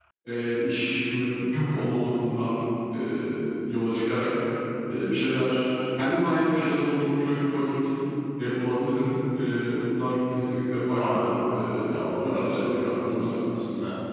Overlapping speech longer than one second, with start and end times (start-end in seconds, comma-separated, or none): 12.1-13.4